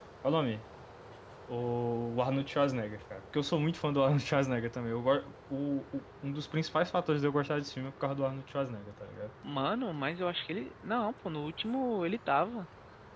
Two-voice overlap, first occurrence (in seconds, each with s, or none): none